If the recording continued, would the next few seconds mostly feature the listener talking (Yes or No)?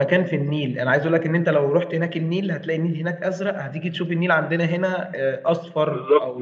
No